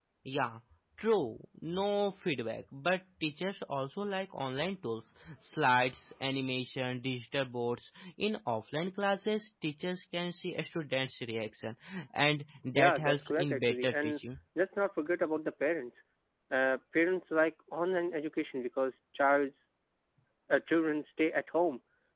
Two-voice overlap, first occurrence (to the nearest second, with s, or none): 13 s